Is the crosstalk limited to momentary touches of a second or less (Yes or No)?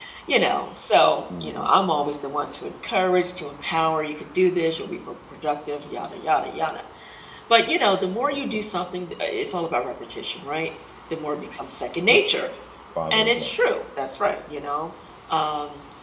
Yes